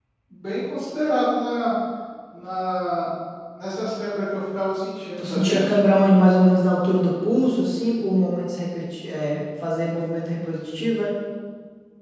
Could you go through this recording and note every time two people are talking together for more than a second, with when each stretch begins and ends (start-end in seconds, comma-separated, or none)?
none